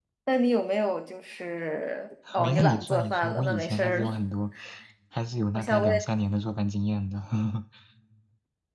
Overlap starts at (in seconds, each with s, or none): 2.4 s